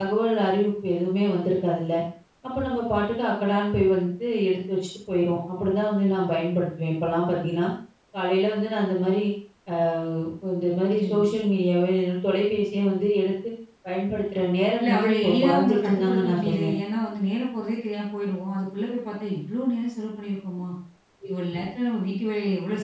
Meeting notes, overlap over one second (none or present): present